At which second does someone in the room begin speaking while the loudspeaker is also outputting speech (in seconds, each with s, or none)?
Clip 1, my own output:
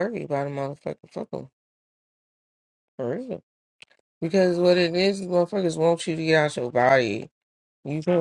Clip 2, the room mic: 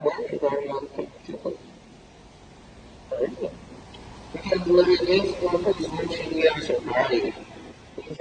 none